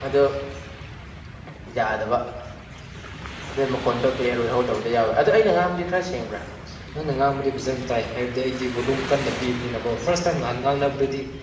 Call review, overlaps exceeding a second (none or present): none